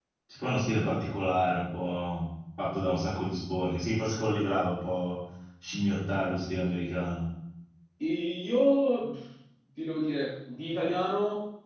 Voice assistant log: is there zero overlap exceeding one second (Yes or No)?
Yes